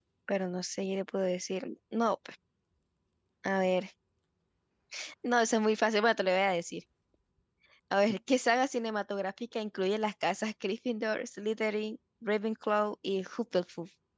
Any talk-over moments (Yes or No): No